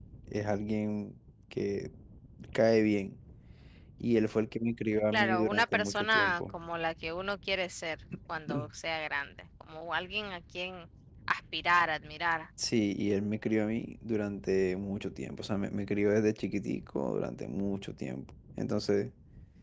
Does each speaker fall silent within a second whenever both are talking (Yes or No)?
No